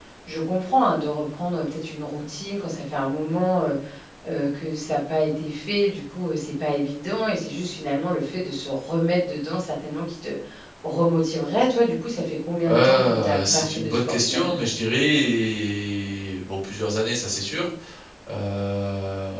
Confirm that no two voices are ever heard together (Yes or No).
No